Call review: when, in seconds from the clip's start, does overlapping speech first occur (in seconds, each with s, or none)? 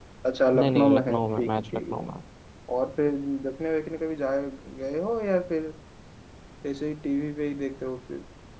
0.6 s